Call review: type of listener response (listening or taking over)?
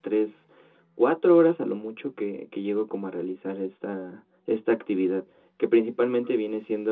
listening